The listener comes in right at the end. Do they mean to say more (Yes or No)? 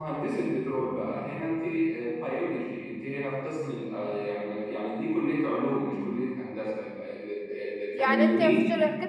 Yes